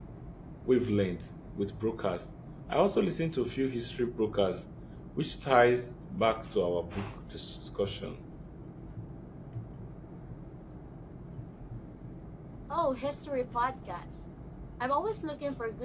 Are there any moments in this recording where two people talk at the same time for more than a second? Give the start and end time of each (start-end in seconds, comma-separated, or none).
none